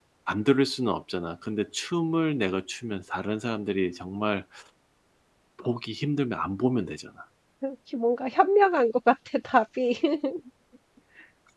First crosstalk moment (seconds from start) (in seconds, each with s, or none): none